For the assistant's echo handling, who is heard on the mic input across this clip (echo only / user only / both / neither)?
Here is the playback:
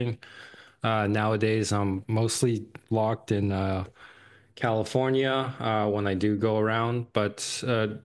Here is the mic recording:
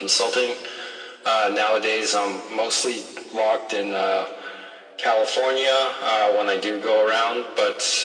echo only